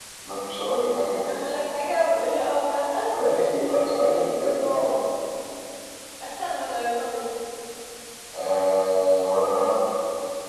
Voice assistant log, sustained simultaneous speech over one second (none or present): present